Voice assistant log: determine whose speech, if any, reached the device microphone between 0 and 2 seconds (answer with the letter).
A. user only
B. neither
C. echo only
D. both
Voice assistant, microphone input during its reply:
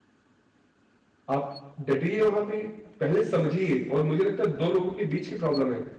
A